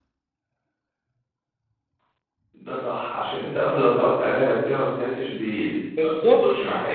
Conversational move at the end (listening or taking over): taking over